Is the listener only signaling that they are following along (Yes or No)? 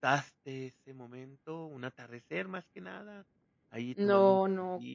No